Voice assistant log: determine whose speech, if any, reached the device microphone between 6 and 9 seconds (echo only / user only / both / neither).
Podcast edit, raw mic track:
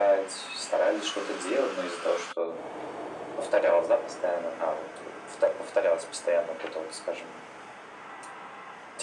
echo only